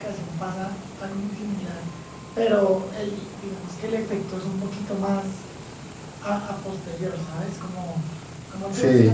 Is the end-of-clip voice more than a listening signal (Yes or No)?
No